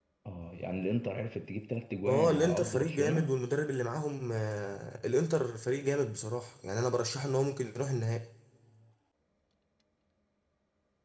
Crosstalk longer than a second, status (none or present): present